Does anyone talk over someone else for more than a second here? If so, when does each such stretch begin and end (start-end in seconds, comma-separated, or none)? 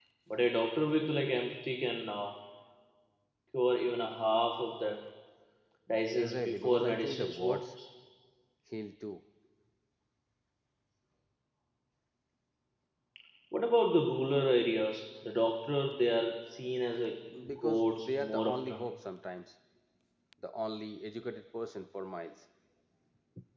6.1-7.7, 17.5-18.8